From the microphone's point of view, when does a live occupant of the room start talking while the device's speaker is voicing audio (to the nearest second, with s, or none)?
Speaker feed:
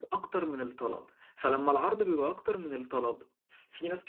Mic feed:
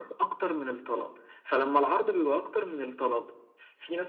none